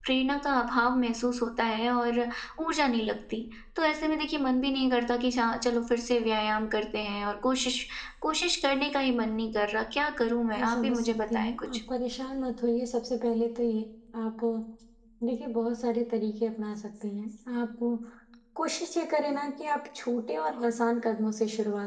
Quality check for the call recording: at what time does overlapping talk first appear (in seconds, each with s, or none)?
10.6 s